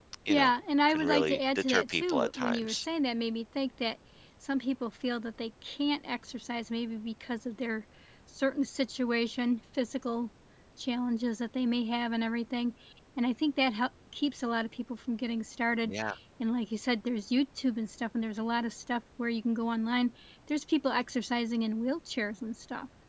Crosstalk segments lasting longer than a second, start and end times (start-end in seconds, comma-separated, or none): 0.9-2.9